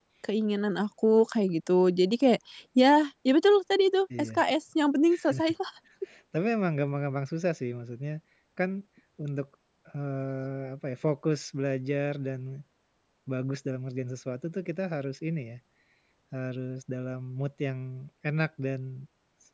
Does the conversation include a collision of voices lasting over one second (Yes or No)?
No